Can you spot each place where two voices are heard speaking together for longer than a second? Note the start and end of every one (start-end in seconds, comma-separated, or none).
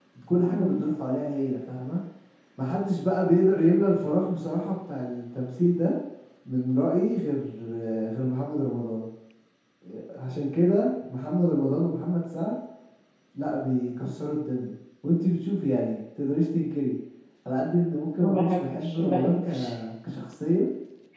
18.2-19.5